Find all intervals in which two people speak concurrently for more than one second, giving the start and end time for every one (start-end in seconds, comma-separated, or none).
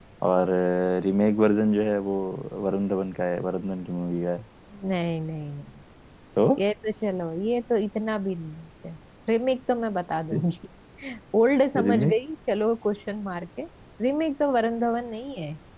none